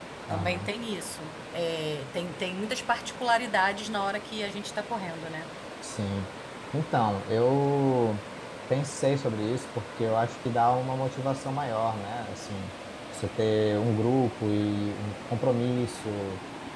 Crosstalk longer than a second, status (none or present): none